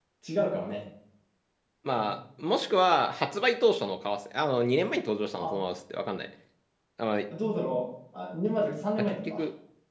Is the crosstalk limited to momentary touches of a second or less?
Yes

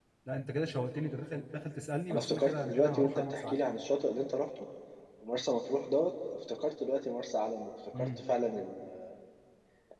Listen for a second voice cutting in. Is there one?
Yes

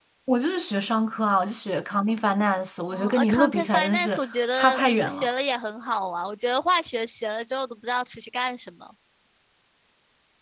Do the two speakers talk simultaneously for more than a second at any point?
Yes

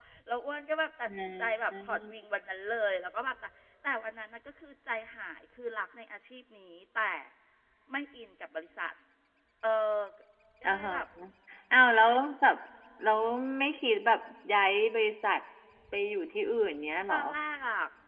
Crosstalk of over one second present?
No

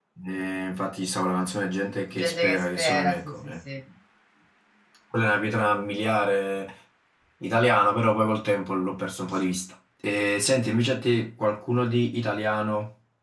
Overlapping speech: Yes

